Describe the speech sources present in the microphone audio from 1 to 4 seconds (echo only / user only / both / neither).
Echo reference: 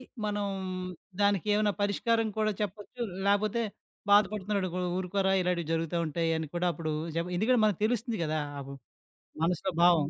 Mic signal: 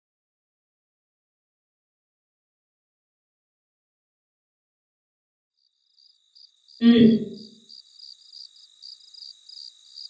neither